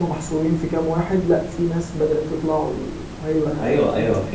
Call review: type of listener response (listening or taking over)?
taking over